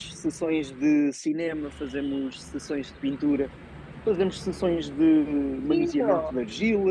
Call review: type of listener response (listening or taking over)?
listening